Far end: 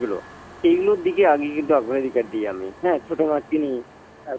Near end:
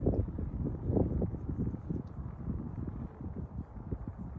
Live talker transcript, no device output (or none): none